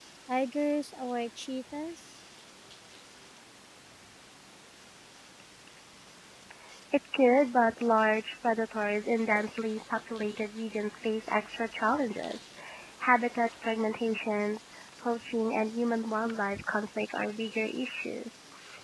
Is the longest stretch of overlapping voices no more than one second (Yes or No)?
Yes